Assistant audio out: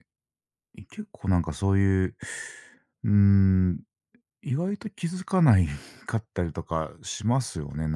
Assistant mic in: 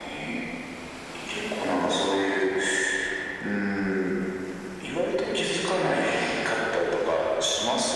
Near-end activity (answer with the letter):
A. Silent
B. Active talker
A